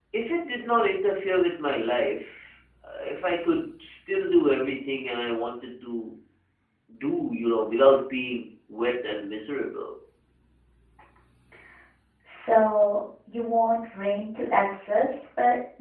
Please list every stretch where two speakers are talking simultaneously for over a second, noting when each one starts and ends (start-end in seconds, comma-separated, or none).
none